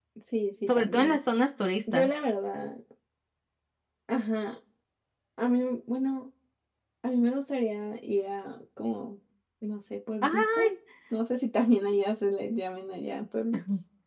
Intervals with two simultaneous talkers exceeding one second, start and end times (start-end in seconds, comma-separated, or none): none